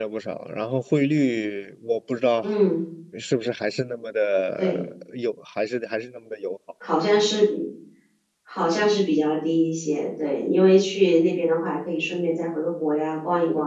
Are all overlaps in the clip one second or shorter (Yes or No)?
Yes